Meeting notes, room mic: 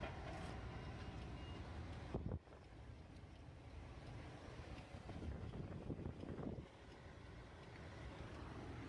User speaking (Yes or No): No